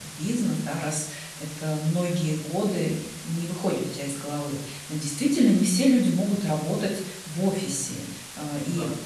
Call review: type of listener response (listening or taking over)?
listening